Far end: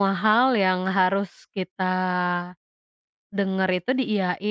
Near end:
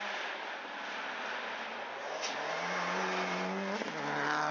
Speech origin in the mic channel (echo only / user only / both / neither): neither